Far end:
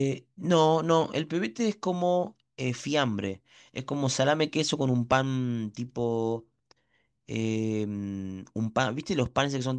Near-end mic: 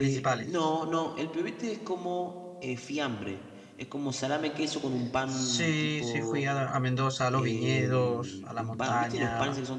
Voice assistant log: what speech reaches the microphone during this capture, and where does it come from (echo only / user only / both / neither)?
both